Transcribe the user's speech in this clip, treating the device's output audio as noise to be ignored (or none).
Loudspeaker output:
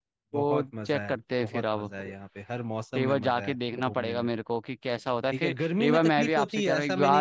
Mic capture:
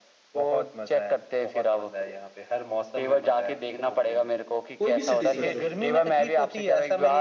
कोई भी सिटी सोचो